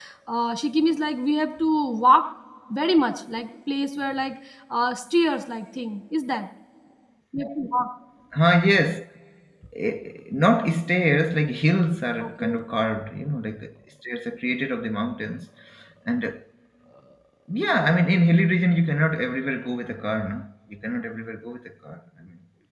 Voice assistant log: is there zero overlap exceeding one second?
Yes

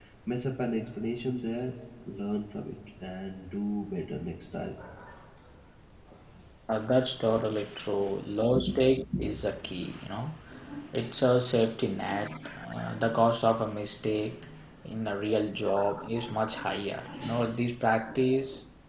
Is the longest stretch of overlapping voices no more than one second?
Yes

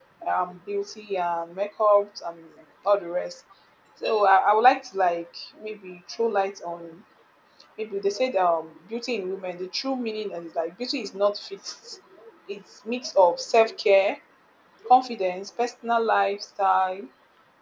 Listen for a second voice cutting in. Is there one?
No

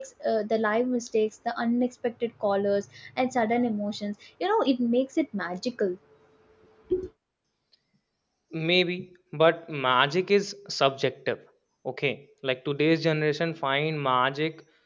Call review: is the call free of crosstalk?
Yes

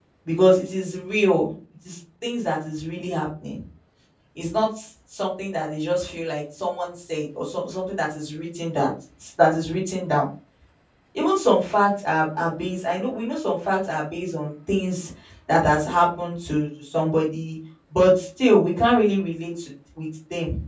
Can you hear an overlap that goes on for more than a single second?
No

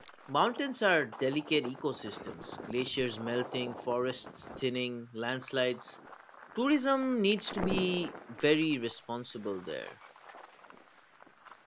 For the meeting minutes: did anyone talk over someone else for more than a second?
No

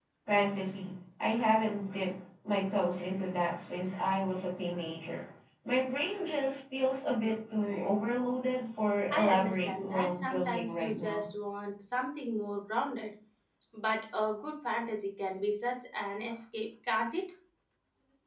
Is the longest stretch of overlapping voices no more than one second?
No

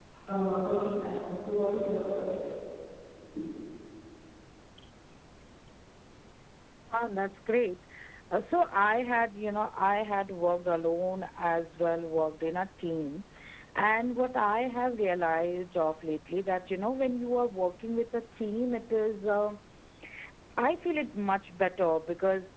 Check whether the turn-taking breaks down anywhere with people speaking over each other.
No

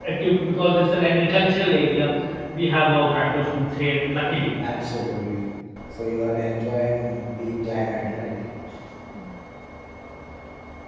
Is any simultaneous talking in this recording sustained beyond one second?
No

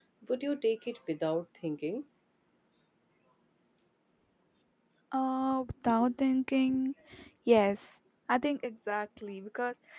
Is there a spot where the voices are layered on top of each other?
No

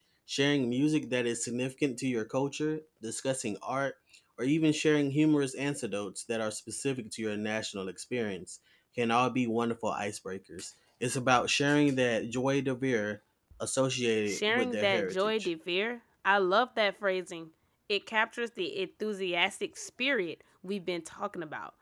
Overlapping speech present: Yes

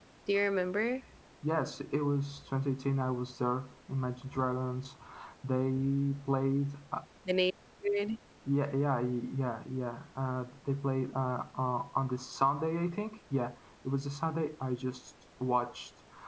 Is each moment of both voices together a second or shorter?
Yes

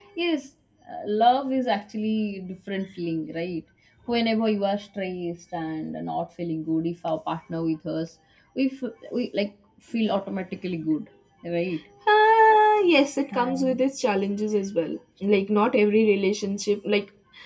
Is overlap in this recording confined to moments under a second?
Yes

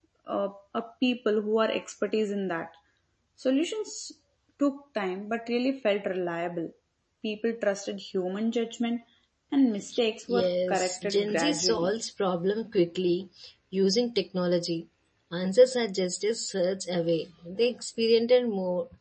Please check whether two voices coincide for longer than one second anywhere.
Yes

